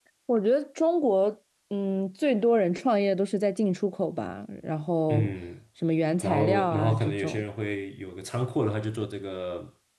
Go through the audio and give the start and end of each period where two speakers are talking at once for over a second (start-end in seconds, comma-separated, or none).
6.2-7.4